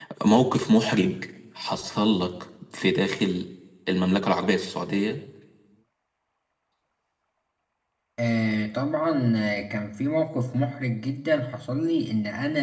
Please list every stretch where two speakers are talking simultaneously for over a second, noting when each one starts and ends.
none

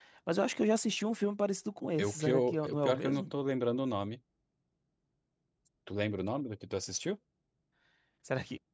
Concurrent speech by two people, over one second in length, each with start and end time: 2.0-3.2

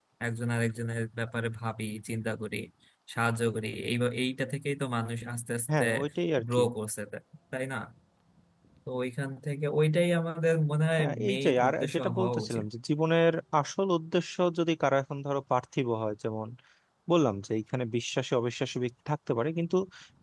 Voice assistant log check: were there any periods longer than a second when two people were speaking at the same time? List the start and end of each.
11.0-12.7

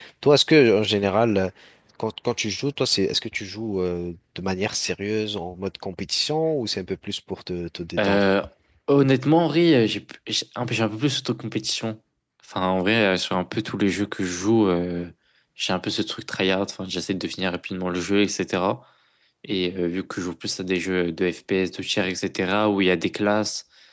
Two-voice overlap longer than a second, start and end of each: none

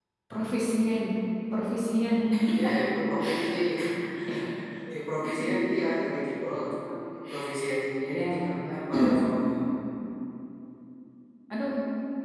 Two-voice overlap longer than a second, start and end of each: none

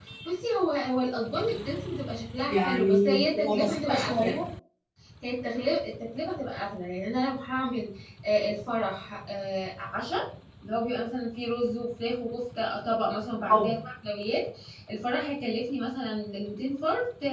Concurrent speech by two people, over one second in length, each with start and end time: 2.5-4.3

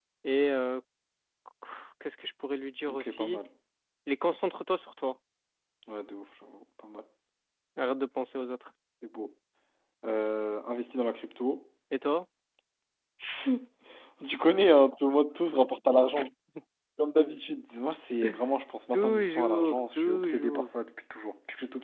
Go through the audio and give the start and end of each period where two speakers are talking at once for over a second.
18.9-20.8

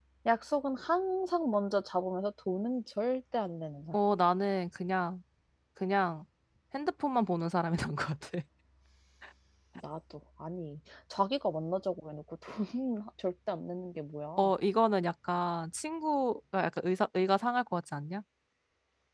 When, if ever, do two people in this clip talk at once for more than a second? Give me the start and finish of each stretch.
none

